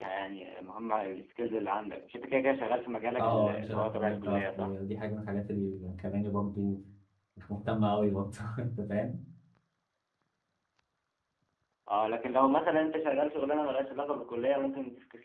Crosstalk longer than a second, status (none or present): present